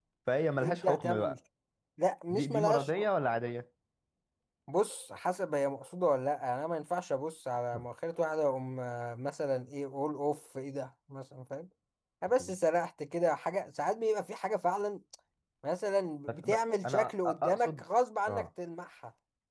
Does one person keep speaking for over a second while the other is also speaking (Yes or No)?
Yes